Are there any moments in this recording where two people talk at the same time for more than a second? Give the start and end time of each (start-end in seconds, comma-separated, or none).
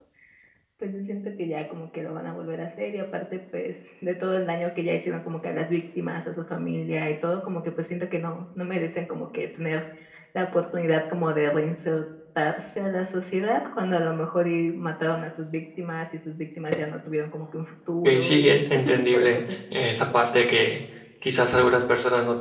18.0-19.4